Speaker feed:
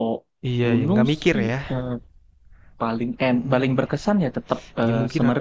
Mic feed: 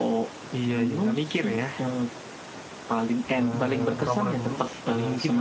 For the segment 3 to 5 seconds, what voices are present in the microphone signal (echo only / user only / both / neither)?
both